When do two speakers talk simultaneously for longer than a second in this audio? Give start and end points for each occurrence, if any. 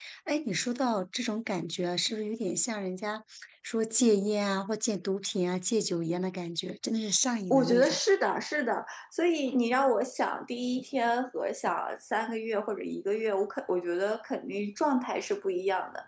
none

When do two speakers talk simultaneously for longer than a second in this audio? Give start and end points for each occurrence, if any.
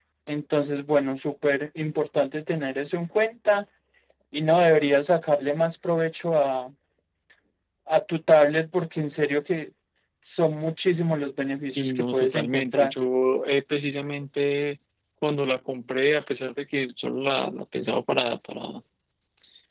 11.7-12.9

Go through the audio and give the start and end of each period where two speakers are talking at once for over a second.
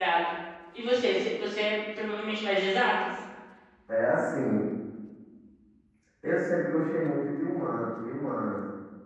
none

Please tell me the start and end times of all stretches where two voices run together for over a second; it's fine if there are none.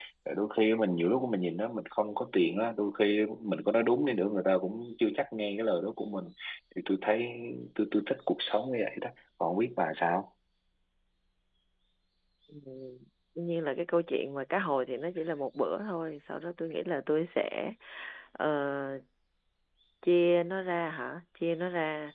none

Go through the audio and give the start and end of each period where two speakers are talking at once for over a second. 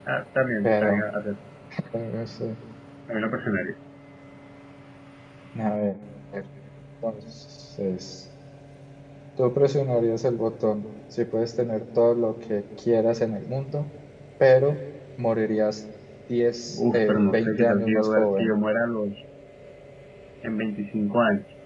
16.7-18.5

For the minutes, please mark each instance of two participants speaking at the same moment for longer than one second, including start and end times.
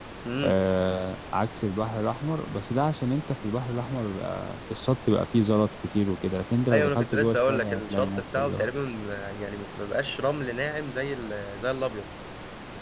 6.7-8.7

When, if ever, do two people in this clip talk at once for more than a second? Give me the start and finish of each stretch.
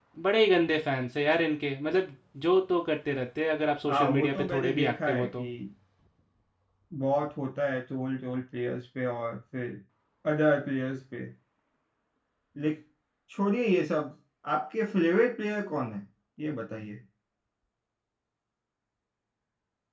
3.9-5.4

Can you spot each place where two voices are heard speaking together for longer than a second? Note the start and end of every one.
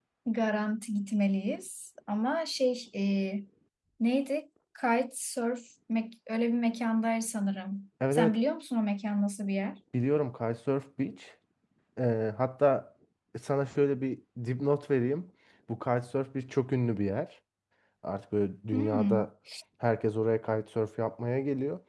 none

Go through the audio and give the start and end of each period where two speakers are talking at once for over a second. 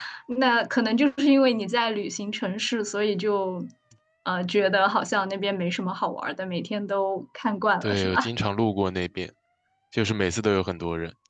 none

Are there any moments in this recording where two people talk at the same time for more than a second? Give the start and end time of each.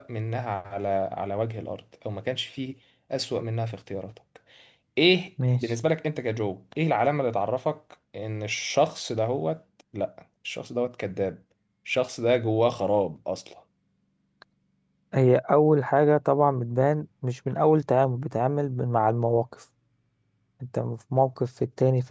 none

